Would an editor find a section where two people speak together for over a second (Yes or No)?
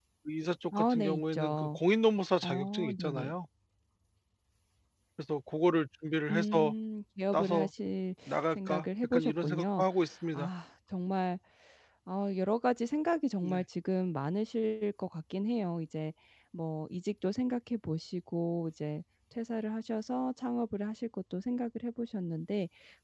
Yes